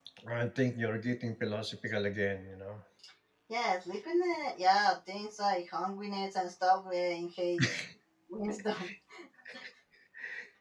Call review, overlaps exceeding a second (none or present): none